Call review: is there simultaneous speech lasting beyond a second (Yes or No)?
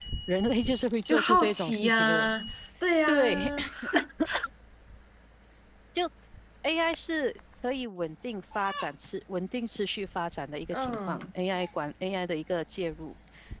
Yes